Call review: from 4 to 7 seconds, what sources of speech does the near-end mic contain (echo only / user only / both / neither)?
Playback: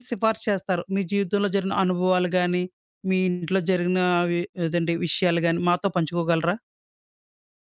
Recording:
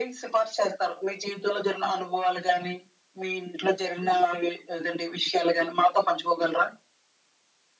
echo only